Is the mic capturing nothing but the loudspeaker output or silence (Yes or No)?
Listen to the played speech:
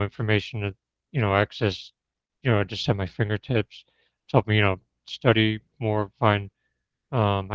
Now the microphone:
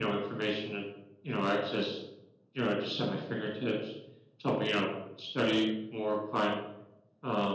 Yes